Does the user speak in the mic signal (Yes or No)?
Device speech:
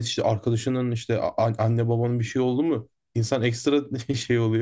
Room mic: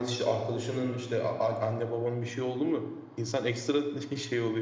No